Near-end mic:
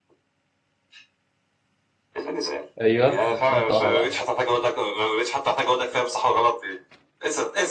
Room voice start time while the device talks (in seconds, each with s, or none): 2.8 s